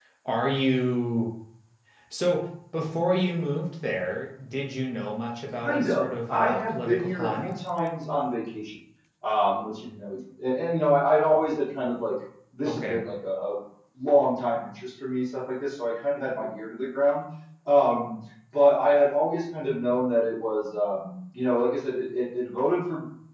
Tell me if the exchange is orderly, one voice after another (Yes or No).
No